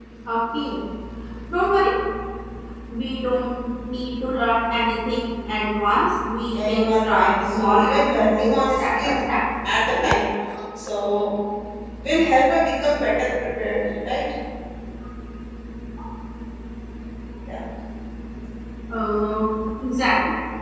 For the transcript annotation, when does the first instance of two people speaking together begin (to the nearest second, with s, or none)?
7 s